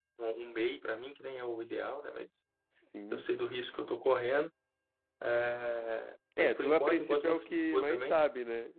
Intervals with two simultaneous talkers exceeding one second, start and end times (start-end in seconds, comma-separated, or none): 6.4-8.2